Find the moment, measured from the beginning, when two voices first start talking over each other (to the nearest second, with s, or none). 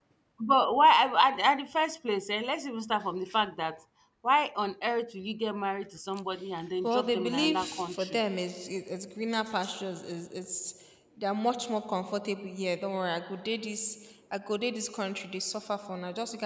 7 s